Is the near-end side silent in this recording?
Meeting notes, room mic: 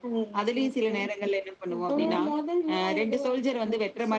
No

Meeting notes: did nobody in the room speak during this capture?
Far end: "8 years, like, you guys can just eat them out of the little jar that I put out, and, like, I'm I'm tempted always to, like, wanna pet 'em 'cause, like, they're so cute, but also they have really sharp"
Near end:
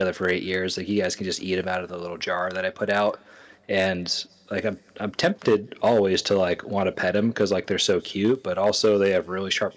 Yes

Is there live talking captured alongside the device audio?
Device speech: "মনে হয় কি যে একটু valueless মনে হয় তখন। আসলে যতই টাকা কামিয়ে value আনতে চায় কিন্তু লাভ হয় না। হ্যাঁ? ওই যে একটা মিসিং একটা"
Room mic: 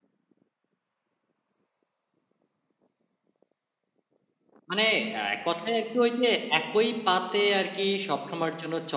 Yes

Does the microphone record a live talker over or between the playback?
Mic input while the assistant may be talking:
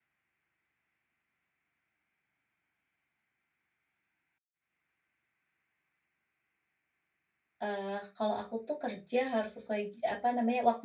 Yes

